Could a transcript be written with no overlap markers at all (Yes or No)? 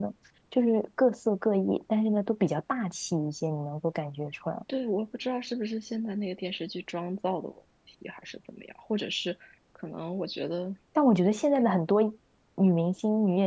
Yes